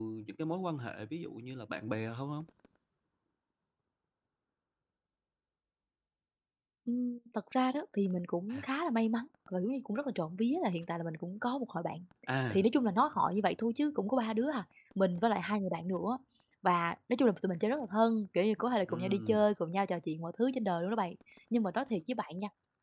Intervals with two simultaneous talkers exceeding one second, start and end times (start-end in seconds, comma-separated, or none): none